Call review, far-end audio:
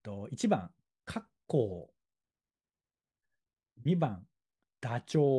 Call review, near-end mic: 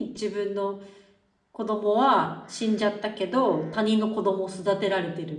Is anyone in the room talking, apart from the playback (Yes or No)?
Yes